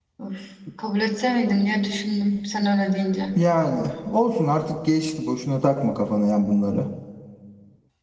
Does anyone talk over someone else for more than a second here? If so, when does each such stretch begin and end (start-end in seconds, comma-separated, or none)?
none